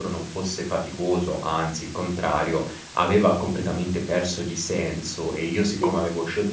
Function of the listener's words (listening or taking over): listening